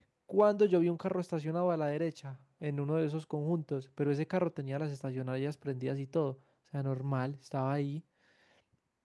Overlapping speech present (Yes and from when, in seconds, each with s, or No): No